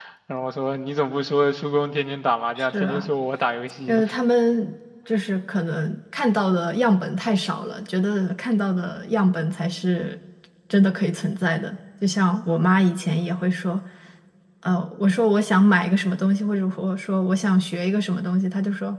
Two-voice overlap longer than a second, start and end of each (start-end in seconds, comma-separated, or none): none